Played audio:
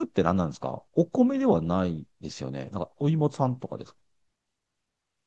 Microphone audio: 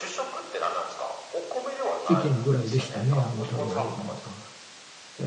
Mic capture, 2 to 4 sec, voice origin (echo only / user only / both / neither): both